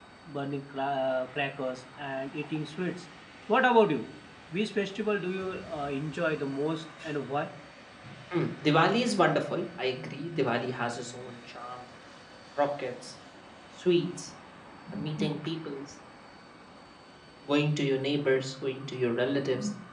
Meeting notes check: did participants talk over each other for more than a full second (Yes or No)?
No